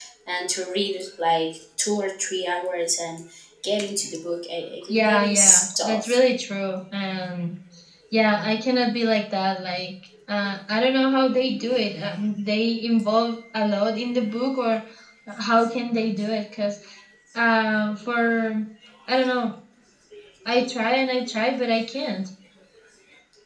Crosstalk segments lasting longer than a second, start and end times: 4.9-6.2

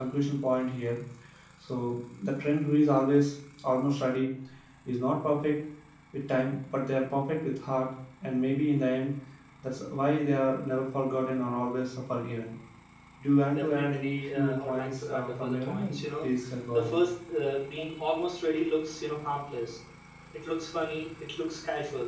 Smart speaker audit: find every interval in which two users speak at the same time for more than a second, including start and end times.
13.5-16.3

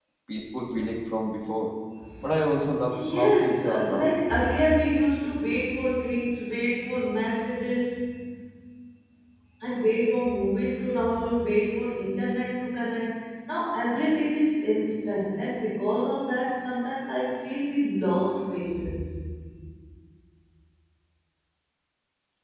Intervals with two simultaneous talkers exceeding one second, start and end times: 2.9-4.1

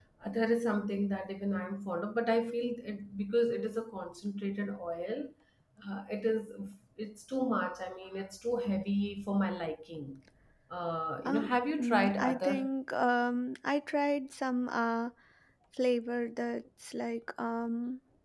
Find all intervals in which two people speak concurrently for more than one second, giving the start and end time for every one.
11.2-12.7

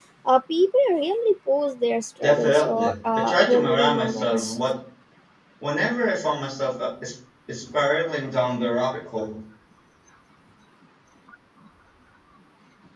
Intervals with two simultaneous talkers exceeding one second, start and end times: 2.2-4.6

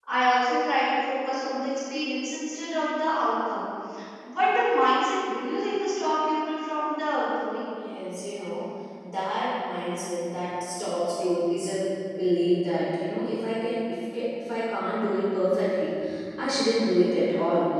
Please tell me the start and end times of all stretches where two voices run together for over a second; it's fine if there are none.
none

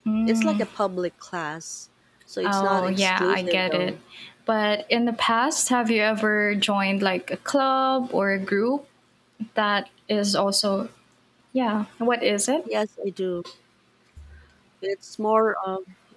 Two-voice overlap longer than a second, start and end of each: 2.4-4.0

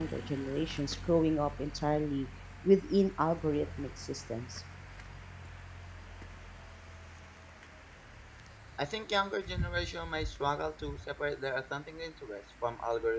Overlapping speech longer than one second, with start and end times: none

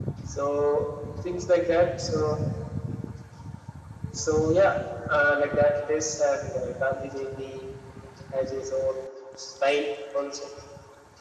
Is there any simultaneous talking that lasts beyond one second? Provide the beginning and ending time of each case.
none

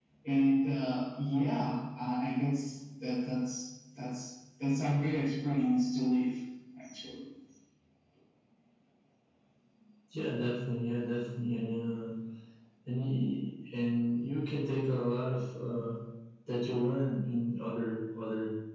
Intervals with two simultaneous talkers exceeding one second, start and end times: none

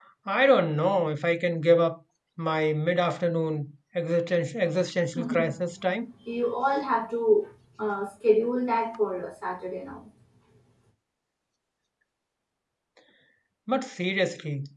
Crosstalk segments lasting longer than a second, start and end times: none

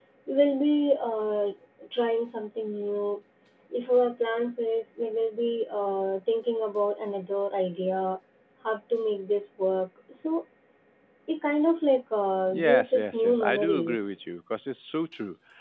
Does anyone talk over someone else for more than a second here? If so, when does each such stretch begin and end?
12.5-14.1

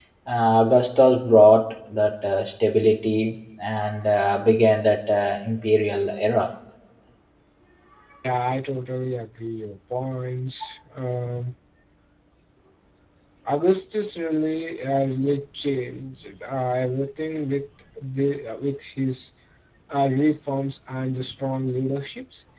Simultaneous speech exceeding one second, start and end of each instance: none

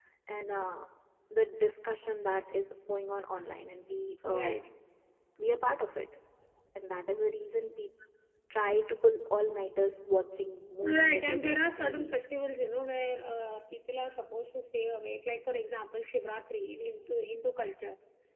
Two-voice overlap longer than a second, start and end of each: 10.8-12.3

